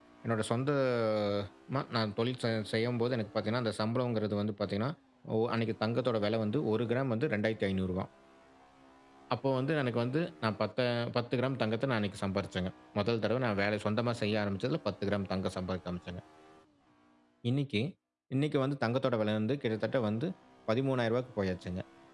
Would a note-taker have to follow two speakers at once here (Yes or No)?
No